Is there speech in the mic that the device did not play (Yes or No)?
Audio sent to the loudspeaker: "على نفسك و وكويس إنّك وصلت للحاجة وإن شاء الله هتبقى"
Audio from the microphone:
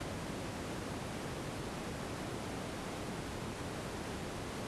No